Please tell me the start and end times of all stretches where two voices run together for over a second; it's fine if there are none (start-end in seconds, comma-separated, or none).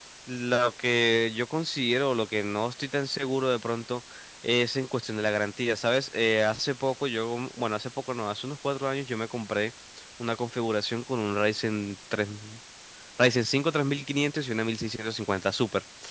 none